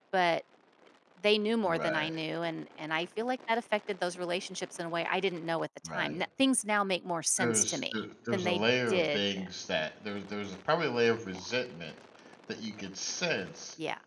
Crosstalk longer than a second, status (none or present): present